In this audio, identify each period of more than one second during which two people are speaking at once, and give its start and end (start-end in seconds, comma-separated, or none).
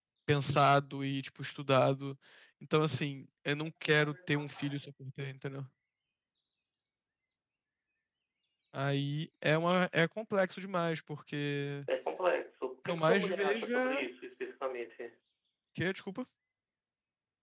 12.8-14.1